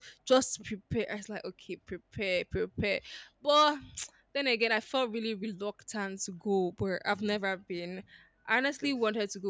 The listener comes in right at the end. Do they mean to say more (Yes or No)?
No